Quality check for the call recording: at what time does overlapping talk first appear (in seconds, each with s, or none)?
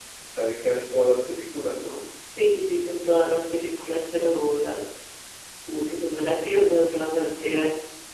none